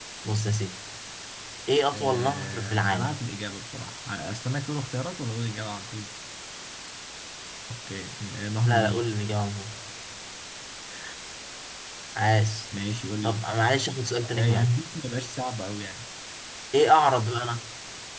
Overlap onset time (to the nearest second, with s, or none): 2 s